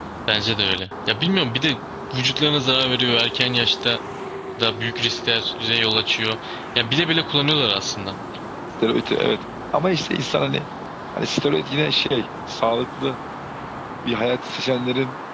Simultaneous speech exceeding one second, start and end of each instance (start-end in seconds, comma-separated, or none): none